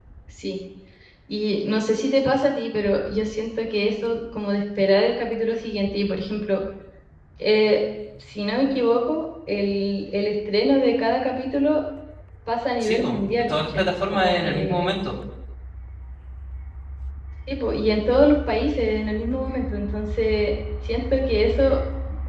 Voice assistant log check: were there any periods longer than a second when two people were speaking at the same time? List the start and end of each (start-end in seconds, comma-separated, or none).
12.8-14.9